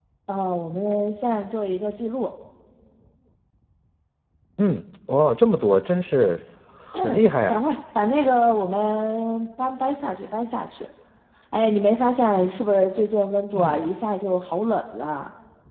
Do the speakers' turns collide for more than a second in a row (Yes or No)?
No